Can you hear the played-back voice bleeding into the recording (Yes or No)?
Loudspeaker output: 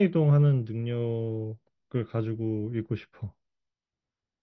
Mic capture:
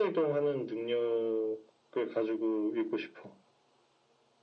Yes